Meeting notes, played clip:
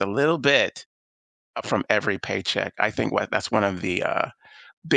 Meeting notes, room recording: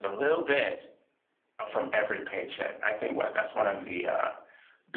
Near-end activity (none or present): none